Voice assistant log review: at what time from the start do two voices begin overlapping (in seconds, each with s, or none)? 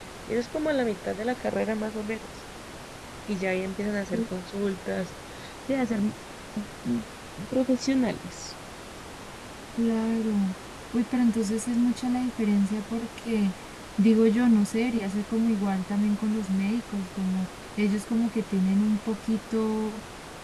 none